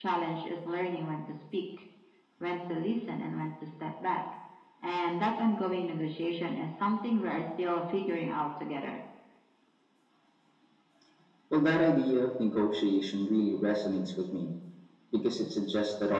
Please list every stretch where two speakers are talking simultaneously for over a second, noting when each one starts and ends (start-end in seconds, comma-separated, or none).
none